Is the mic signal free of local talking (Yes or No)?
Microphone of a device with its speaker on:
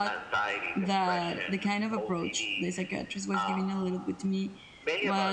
No